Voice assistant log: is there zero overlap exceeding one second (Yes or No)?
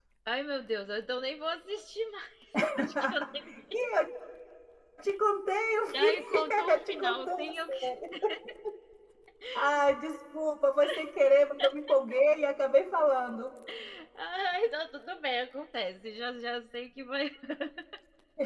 No